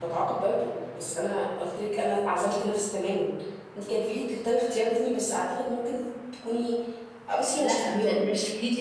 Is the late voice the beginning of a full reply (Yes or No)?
Yes